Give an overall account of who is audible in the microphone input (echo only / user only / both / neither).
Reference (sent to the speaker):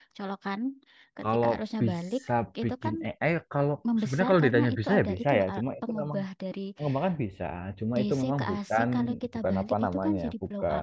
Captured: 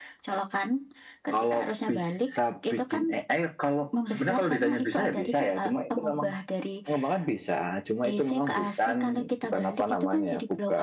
echo only